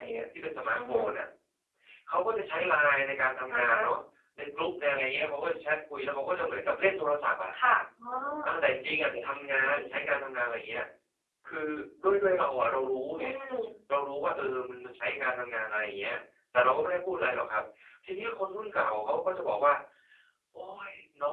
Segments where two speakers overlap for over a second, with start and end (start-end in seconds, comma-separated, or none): none